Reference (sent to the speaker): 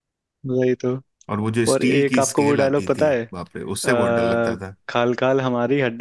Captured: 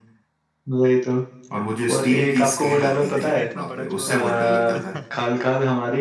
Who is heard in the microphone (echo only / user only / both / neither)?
both